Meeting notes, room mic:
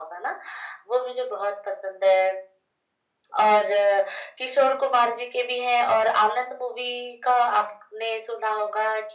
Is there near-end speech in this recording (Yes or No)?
No